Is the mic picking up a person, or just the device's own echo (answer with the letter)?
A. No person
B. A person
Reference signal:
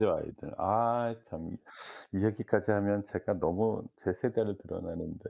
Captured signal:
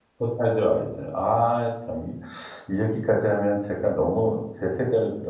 A